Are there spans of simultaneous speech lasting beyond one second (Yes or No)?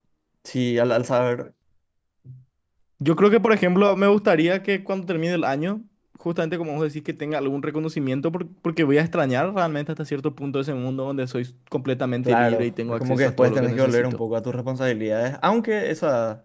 Yes